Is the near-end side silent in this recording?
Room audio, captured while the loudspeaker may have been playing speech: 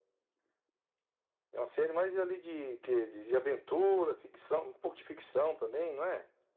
Yes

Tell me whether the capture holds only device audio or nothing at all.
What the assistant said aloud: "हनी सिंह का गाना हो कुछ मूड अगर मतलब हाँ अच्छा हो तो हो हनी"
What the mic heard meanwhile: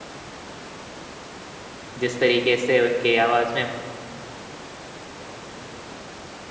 No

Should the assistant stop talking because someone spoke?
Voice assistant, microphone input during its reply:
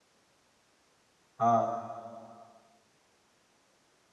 Yes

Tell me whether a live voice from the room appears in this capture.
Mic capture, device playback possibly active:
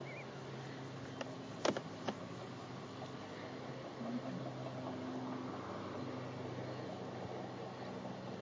No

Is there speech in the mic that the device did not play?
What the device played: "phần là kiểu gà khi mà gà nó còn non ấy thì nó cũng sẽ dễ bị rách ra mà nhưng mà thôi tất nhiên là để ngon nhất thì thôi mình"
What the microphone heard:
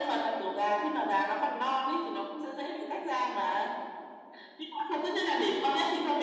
No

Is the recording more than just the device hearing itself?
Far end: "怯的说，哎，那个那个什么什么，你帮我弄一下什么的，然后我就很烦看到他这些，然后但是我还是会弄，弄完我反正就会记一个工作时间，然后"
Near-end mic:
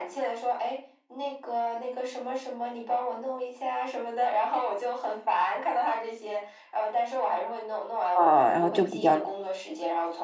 Yes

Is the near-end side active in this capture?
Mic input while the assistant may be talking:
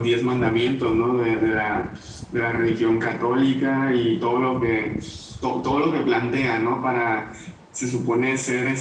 No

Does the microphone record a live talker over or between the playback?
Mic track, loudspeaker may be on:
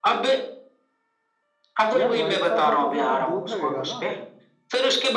Yes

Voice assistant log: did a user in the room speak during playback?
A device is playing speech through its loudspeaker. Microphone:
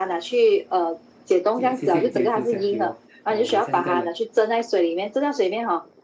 Yes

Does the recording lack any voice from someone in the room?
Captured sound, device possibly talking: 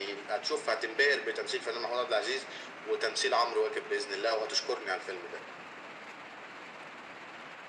Yes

